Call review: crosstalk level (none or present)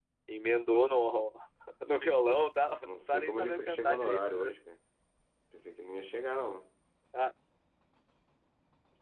present